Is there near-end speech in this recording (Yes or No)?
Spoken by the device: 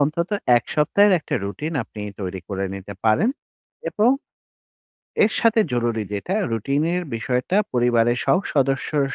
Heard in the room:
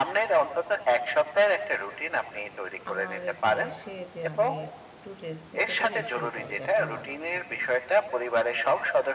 Yes